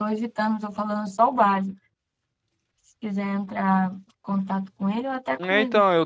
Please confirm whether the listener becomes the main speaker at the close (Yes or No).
Yes